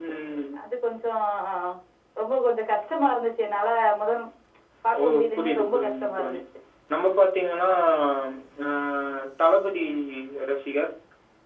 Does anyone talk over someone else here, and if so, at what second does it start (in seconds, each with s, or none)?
5.0 s